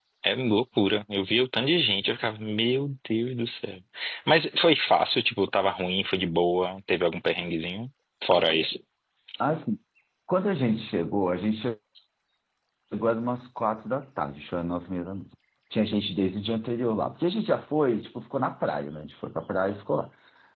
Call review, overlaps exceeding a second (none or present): none